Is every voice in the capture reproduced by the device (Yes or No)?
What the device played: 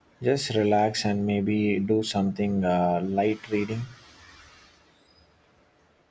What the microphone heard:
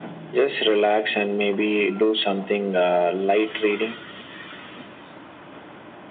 Yes